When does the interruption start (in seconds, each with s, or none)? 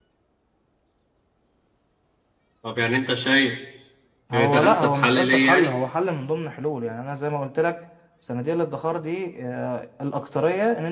4.3 s